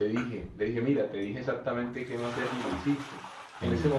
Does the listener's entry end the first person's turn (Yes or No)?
No